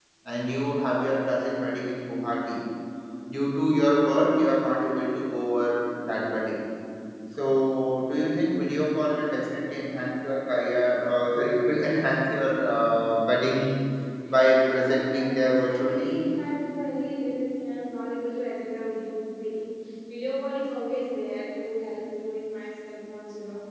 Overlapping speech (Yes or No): Yes